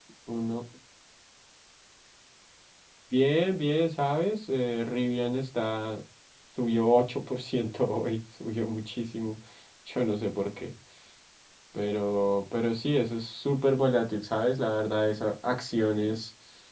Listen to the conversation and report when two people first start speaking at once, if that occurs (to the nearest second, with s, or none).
none